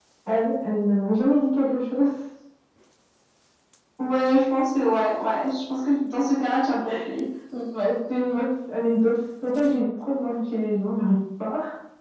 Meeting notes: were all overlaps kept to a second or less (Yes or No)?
Yes